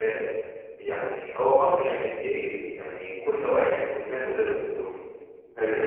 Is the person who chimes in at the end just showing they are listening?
Yes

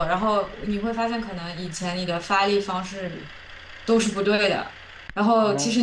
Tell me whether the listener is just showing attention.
Yes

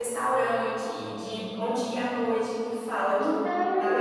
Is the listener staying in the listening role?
No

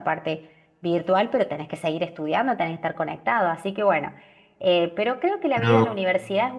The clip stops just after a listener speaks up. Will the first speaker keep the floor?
Yes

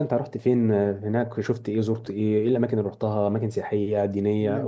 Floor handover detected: Yes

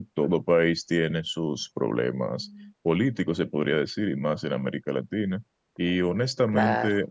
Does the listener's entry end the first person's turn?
No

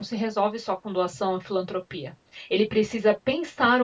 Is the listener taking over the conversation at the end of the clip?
No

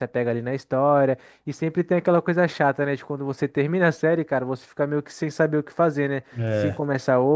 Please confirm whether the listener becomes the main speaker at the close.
No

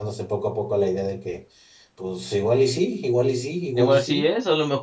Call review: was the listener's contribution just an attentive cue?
No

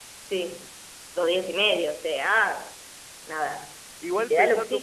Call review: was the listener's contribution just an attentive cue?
No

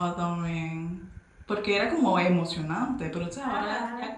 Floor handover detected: No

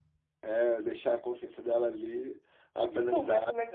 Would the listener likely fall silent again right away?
No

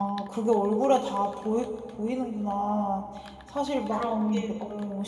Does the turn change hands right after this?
No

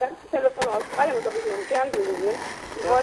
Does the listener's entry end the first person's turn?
No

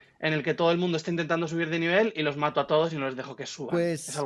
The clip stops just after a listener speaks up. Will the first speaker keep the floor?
No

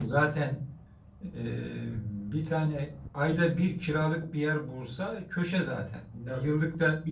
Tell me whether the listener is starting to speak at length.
No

